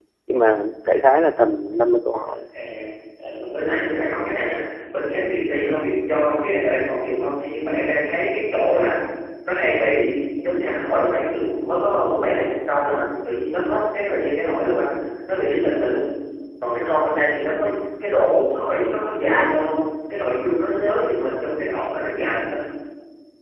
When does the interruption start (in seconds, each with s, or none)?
none